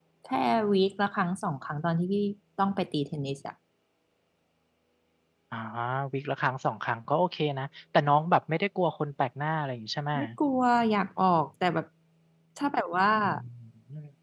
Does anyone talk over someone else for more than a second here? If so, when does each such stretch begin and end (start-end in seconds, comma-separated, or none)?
none